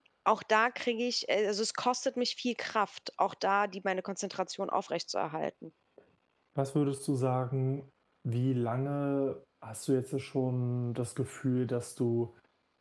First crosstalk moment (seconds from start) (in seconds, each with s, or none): none